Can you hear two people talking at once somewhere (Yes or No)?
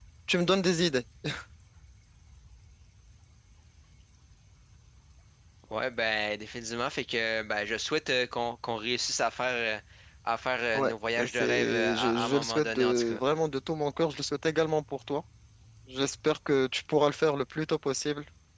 Yes